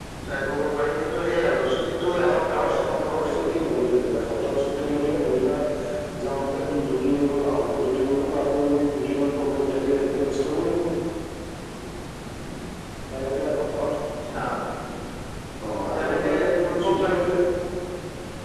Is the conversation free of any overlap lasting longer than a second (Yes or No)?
No